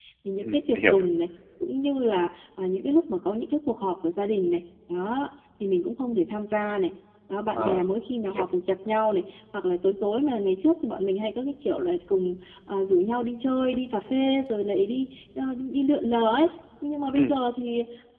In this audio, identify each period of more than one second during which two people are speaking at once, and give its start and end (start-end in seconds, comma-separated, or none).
none